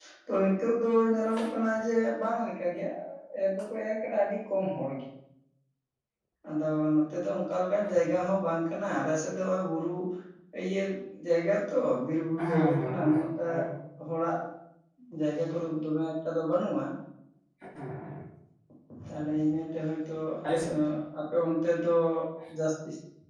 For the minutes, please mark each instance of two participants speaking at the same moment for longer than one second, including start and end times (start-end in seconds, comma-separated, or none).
12.4-13.6